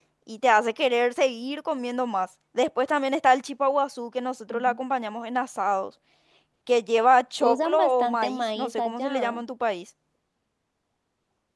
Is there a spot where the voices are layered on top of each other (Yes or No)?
Yes